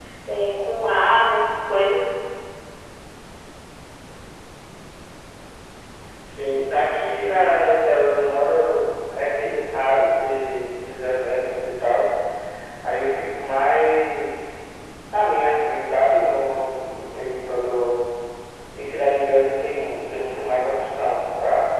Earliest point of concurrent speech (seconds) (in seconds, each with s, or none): none